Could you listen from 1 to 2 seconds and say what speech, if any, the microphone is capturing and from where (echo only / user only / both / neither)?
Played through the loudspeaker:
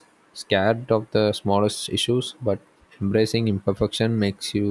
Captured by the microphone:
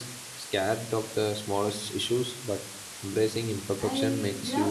echo only